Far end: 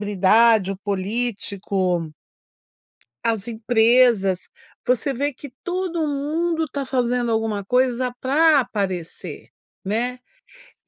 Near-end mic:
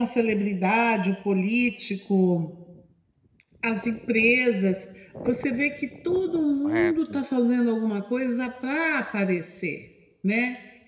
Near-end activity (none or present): present